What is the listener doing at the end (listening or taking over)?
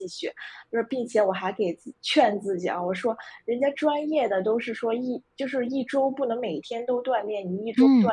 listening